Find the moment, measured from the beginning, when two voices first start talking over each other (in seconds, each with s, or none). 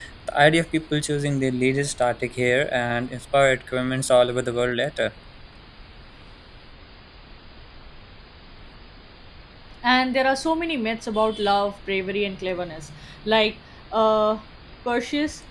none